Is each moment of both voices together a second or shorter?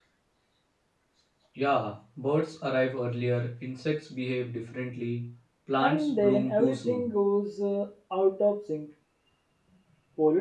No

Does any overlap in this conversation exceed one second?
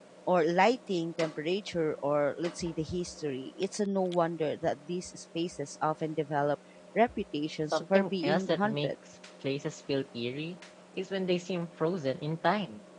Yes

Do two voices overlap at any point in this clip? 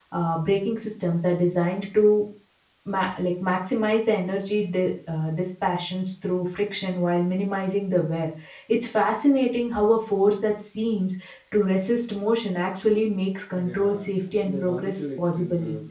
Yes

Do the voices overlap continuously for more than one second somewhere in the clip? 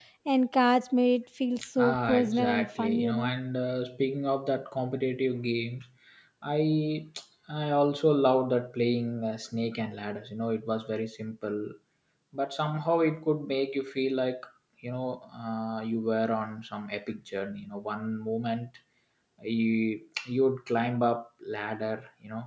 Yes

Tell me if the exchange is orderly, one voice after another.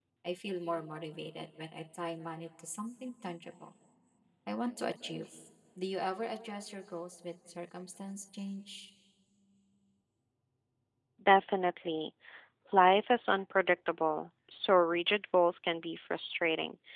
Yes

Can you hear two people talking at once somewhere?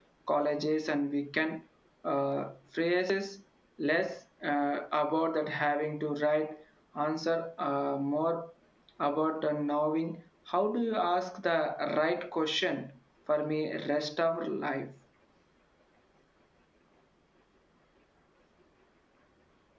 No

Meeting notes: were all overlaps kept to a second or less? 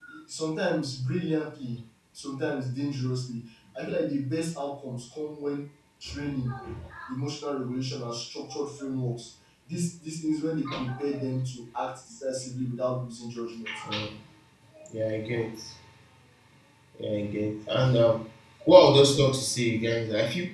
Yes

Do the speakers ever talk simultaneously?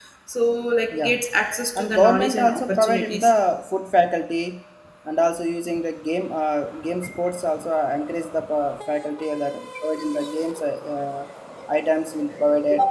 Yes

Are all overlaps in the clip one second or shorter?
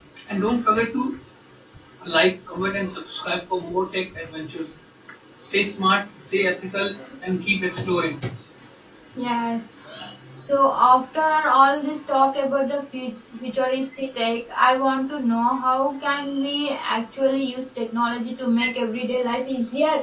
Yes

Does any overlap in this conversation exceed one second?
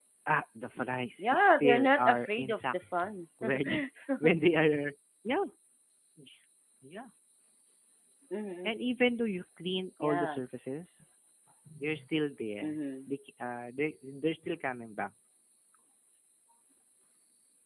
Yes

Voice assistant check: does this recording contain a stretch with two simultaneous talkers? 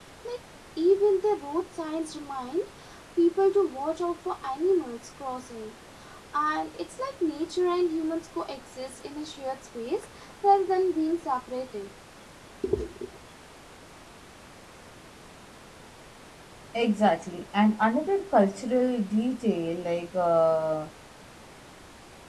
No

